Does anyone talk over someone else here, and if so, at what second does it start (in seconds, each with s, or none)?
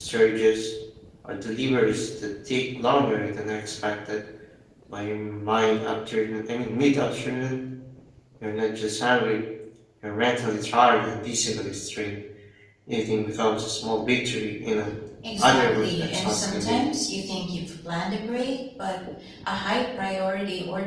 15.2 s